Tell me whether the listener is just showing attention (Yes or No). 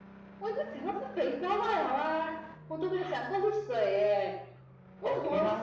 Yes